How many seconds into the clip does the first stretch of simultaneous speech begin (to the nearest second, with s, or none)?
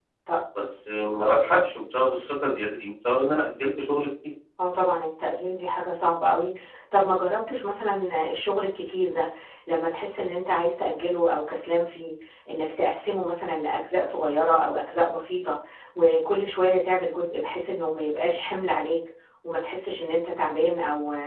none